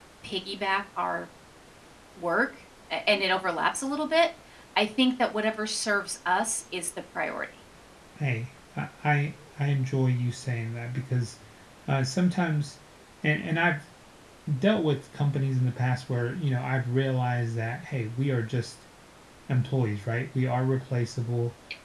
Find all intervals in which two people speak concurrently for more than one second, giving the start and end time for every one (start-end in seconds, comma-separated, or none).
none